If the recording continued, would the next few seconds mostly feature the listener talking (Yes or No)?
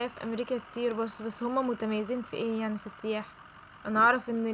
No